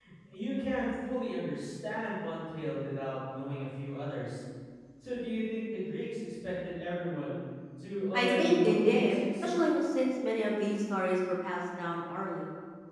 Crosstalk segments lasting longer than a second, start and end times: 8.1-9.5

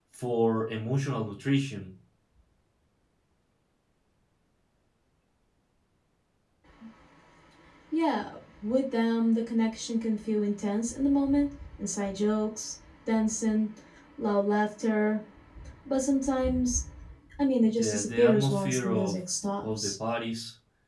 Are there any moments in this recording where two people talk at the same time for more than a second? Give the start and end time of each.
17.8-19.2

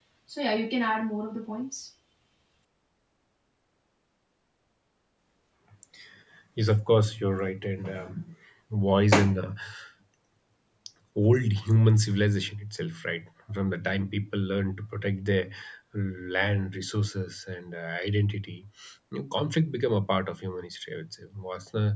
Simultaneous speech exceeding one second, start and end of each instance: none

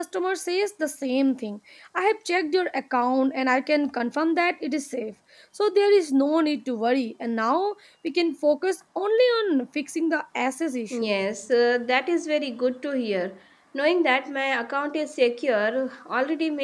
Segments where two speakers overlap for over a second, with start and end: none

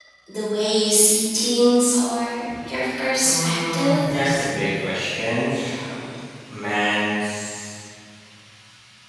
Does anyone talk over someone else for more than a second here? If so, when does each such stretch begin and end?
3.2-4.5

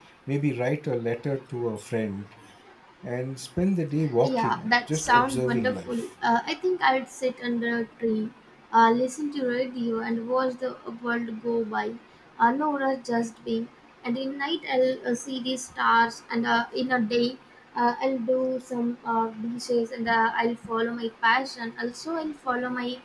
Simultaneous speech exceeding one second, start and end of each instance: 4.3-5.9

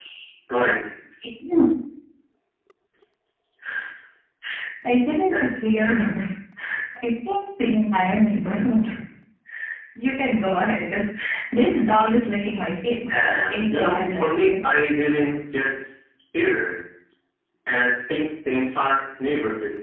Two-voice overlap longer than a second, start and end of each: 13.1-14.5

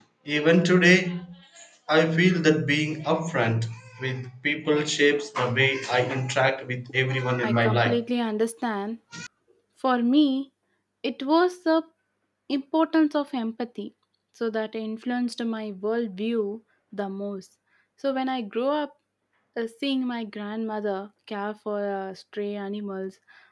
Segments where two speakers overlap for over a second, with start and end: none

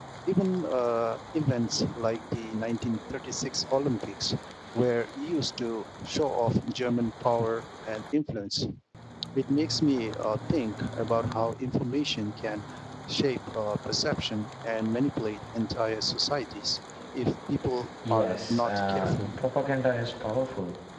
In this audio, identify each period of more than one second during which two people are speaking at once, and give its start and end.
18.1-19.3

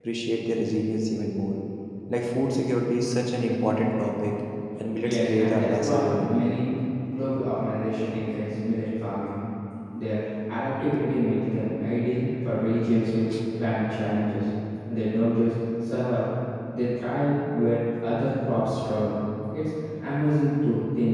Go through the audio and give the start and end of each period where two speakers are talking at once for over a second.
5.0-6.4

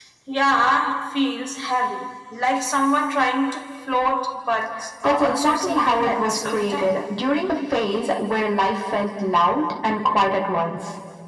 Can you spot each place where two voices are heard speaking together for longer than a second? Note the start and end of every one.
5.0-7.0

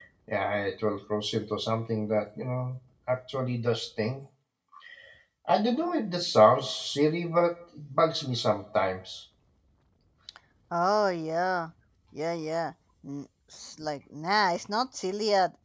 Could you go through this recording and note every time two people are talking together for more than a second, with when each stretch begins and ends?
none

